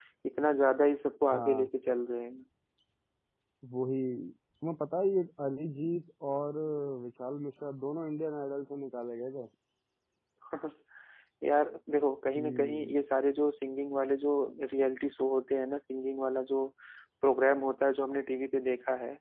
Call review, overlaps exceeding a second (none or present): none